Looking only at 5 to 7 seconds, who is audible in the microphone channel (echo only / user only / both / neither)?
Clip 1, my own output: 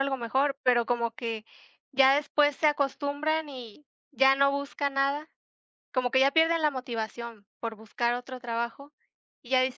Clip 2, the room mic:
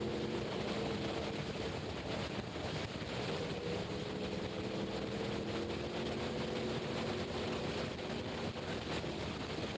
neither